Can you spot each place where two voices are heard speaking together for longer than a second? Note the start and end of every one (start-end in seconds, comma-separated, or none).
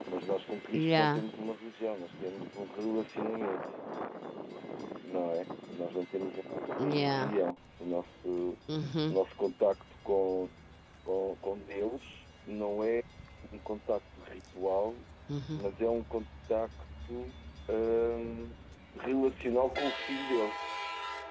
none